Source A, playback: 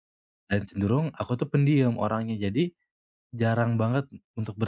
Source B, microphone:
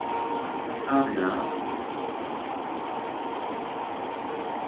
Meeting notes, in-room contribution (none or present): present